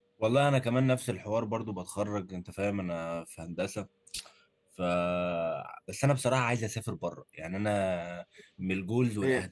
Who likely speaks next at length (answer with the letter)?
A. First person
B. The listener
B